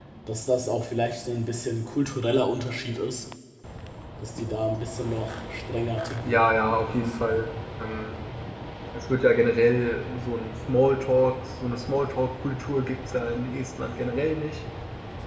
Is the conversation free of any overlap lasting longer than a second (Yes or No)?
No